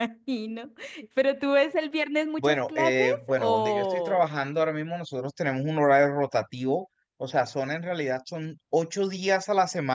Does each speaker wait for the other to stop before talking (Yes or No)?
No